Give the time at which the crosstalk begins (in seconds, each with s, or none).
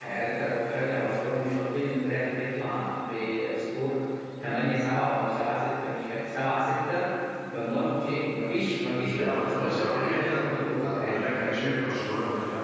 9.2 s